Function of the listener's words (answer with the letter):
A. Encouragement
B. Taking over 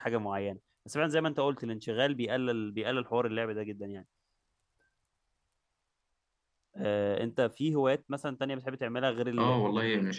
B